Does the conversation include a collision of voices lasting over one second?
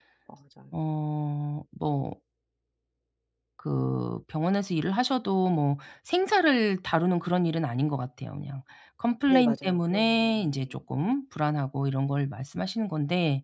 Yes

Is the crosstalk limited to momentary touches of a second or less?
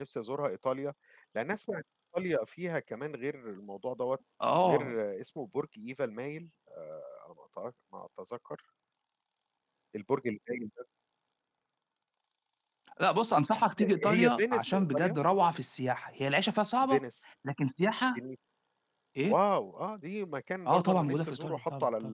No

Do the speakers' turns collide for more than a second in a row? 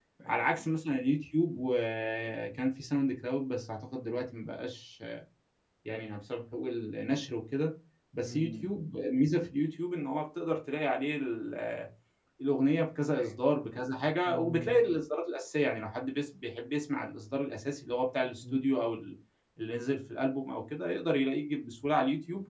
No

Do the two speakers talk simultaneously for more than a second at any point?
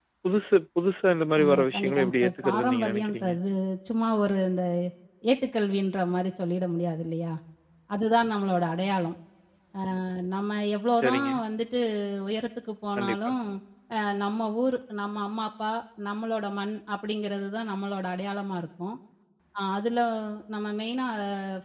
Yes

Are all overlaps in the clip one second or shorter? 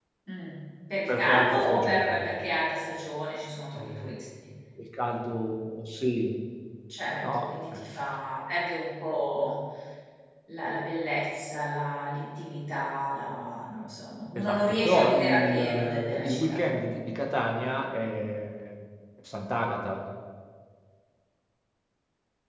No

